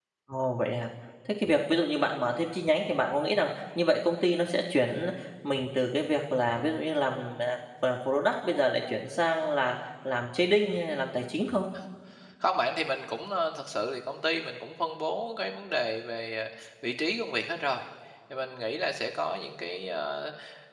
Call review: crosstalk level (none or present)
none